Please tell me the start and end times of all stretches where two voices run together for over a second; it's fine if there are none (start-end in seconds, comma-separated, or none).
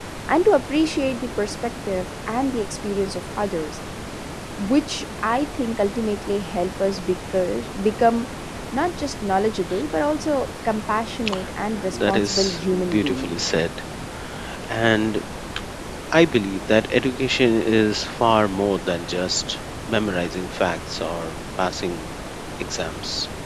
11.9-13.3